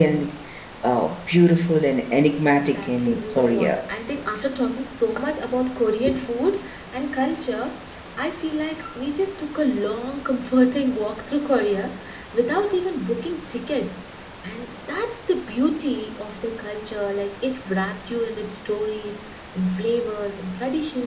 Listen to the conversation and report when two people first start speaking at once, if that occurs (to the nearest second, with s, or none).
2 s